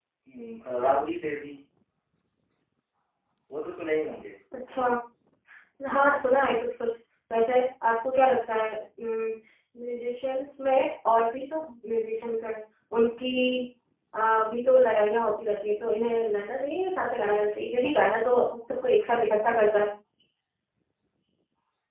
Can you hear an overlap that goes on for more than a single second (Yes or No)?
No